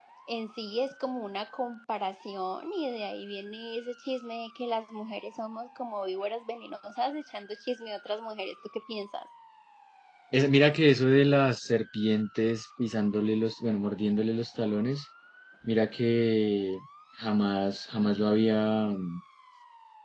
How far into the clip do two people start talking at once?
none

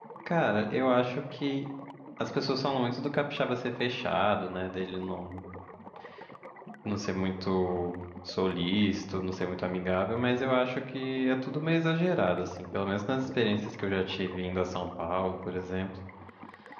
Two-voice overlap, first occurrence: none

